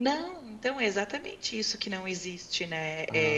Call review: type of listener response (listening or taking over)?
listening